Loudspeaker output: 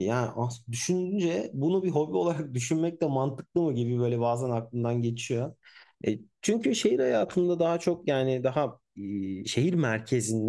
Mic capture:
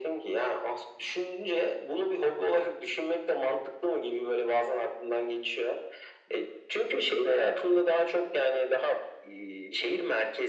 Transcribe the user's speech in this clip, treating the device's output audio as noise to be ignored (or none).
none